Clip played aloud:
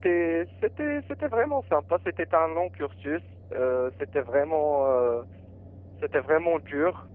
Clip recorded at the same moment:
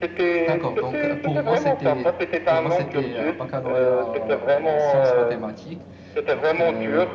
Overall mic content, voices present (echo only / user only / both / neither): both